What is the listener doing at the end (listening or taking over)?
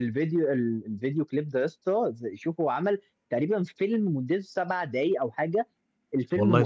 listening